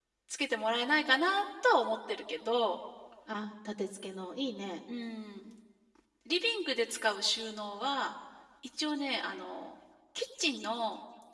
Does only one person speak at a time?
Yes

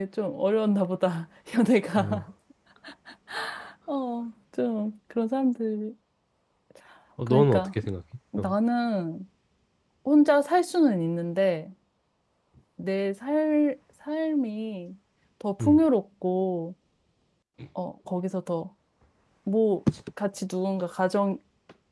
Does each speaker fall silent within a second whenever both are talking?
Yes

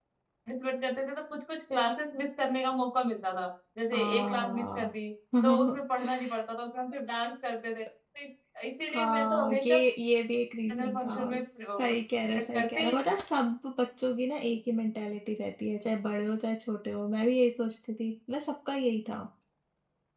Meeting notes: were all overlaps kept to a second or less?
No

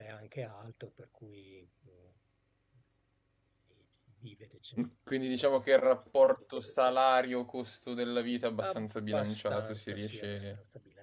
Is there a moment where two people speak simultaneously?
Yes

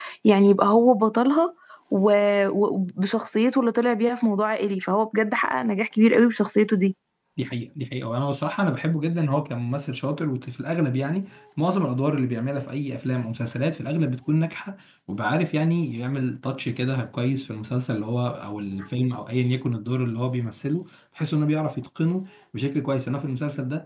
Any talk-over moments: No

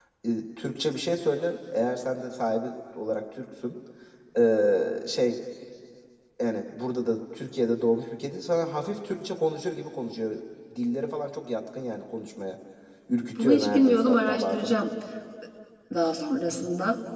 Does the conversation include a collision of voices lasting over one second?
Yes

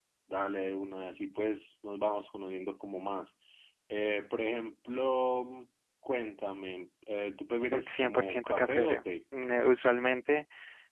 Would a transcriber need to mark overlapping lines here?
Yes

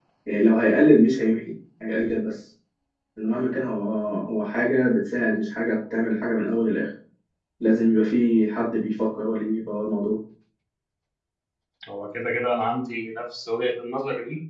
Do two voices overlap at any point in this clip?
No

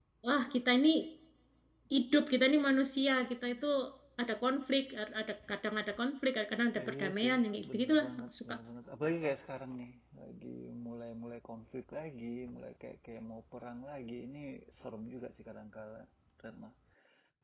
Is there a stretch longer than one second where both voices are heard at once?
Yes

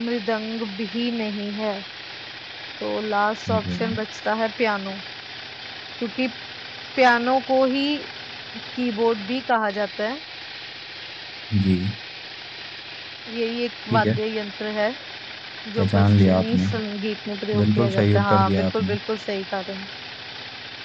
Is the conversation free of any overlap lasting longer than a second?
No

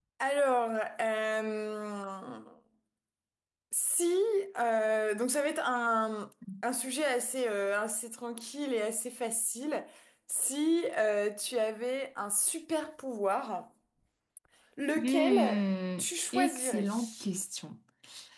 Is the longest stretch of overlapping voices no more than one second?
No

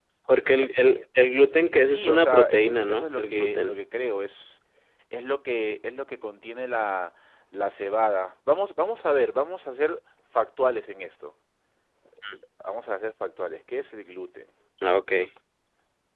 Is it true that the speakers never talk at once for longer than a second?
No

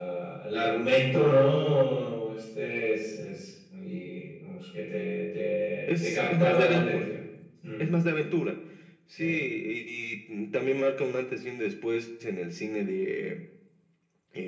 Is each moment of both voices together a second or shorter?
No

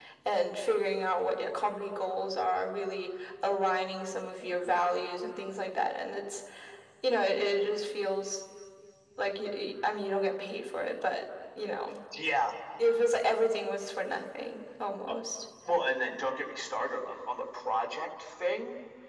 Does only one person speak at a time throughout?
Yes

